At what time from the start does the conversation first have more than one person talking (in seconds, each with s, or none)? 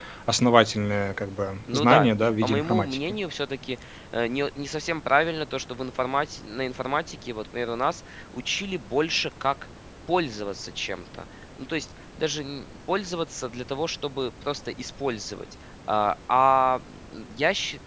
1.7 s